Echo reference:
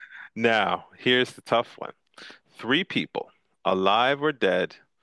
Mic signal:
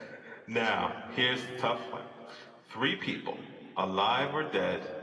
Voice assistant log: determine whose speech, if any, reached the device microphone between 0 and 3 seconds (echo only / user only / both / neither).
echo only